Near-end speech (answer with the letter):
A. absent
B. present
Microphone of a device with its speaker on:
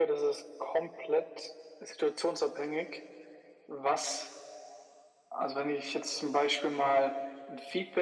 A